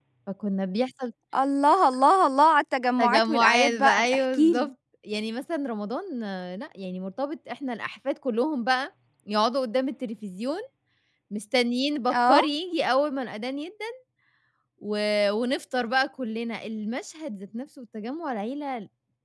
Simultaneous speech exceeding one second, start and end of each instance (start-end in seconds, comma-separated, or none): 3.0-4.7